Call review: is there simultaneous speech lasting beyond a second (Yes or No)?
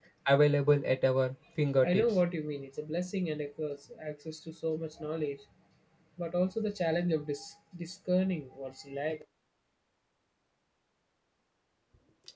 No